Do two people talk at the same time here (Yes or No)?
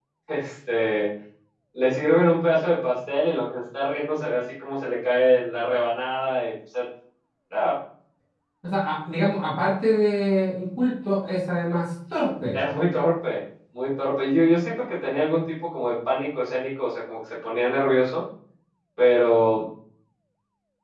No